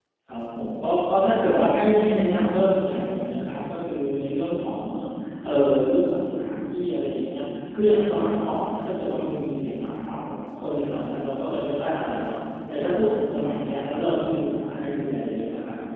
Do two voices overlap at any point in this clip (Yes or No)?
No